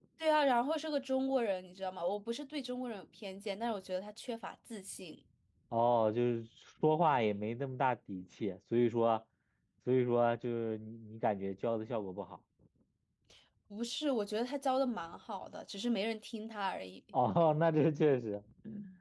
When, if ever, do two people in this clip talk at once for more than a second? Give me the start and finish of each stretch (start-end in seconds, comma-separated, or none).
none